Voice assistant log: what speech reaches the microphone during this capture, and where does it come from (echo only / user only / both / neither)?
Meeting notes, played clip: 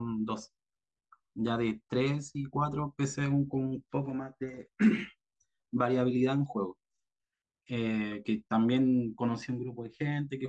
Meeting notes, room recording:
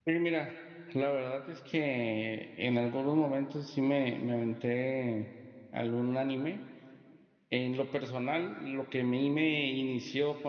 user only